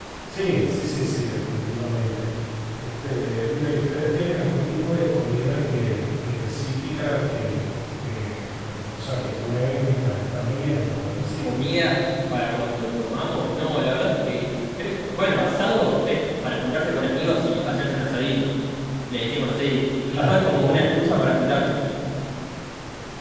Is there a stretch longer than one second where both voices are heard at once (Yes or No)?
No